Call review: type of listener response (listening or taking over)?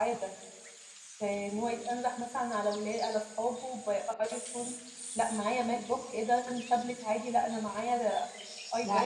taking over